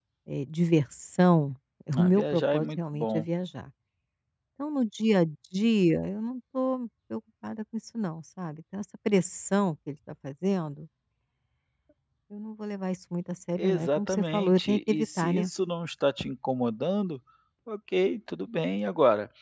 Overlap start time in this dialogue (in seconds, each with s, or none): 2.0 s